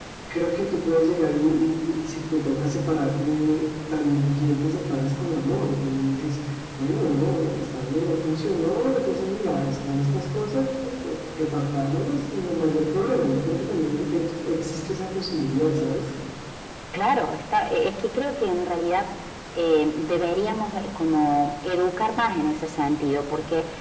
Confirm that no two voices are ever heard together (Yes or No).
Yes